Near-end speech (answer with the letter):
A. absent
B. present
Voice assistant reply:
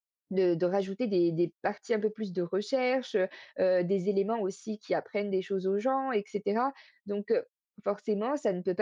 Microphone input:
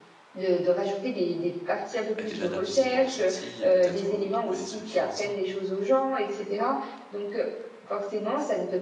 B